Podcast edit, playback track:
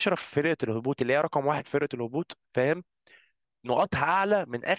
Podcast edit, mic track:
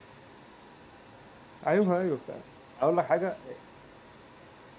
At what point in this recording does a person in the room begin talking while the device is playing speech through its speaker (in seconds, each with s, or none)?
1.7 s